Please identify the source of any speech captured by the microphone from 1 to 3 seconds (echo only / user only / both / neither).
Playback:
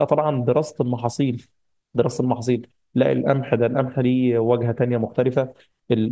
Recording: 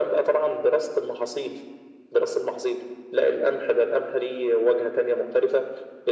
echo only